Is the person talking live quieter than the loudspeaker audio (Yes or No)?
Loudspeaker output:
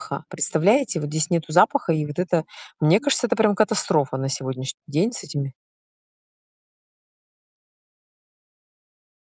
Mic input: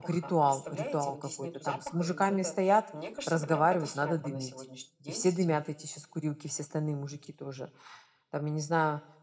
No